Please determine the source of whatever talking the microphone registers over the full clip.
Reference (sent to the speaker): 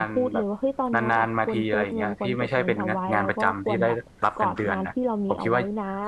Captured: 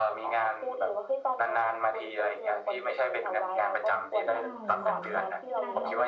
both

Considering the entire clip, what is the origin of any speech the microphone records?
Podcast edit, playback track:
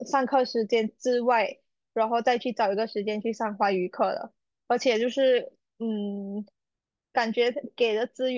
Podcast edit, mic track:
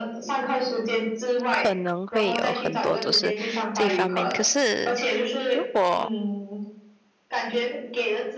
both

